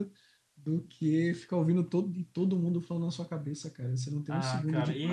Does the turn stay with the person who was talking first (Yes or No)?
No